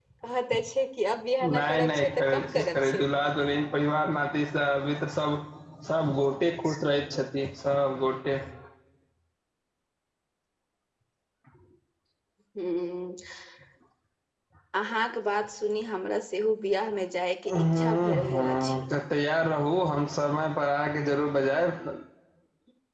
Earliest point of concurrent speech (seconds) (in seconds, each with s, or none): 1.5 s